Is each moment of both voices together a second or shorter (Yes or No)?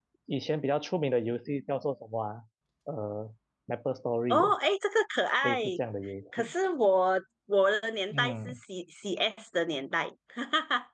Yes